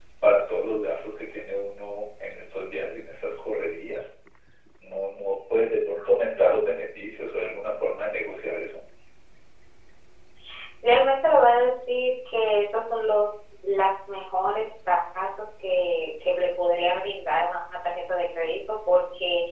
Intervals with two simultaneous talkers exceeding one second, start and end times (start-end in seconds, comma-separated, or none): none